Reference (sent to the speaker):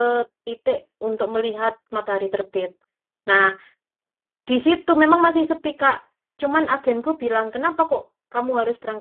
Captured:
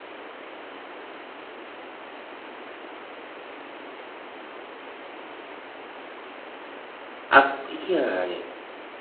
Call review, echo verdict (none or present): none